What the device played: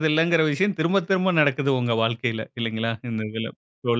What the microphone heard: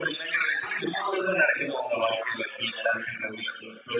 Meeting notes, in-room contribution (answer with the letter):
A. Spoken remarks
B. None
B